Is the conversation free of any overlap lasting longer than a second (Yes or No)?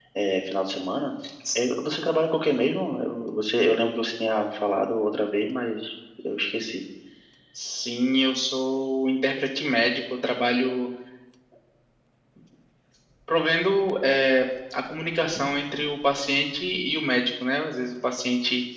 Yes